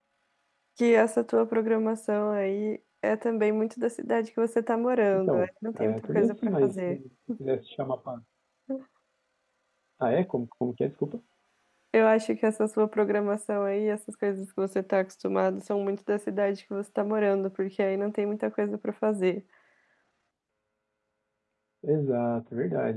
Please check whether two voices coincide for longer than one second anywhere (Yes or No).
Yes